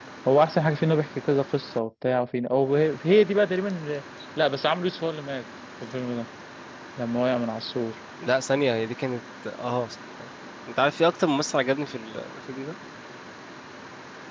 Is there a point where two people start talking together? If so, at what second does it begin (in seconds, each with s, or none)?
none